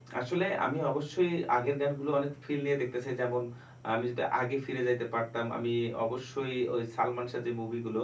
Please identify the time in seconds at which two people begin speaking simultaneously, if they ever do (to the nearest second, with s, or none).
none